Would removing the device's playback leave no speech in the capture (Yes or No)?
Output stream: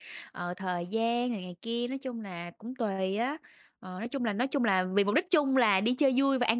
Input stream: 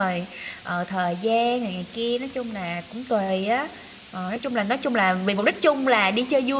Yes